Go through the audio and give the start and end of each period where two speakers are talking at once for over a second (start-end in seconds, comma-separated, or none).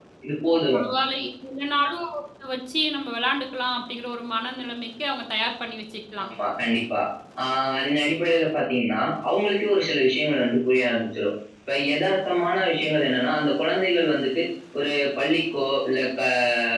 none